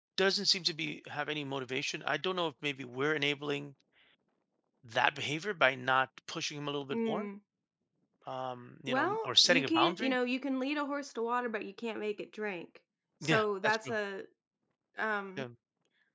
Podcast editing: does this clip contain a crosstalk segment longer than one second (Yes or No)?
Yes